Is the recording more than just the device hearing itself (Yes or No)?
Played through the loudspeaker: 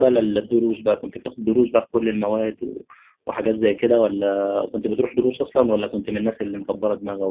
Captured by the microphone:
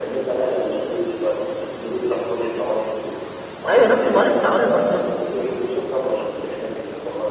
Yes